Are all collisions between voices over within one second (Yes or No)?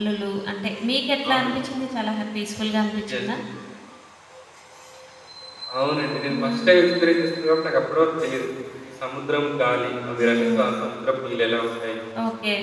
Yes